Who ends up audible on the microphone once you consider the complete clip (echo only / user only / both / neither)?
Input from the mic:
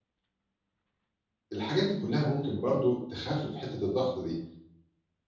user only